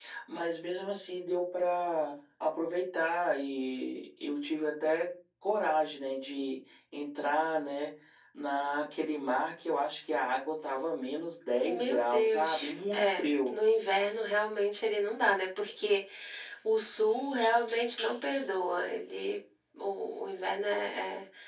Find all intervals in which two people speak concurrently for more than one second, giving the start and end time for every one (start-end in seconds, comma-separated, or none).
11.7-13.5